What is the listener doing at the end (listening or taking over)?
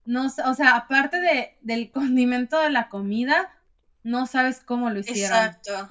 taking over